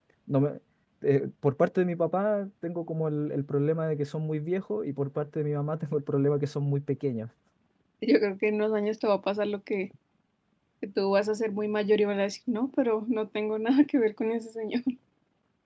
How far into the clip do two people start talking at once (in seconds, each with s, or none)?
none